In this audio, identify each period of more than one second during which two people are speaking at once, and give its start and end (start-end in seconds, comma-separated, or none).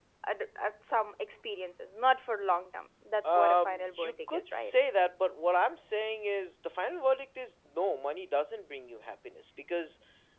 3.2-4.7